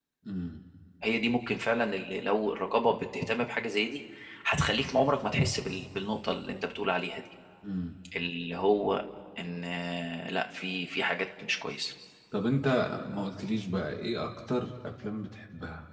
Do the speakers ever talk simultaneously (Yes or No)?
No